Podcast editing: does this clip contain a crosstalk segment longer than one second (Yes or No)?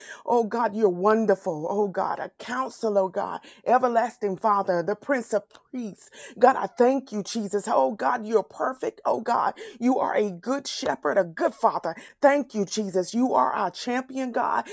No